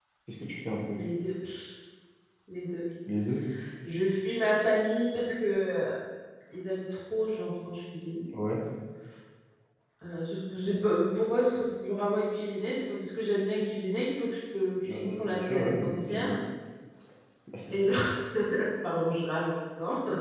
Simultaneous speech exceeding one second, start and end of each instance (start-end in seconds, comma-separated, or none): 14.8-16.4